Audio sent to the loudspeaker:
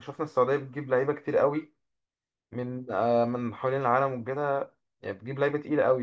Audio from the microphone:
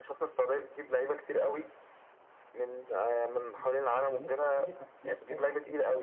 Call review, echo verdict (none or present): present